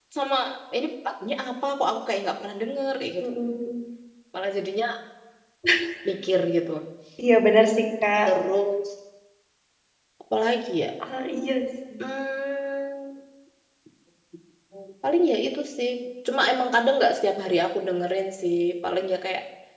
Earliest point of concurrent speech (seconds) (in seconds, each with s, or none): none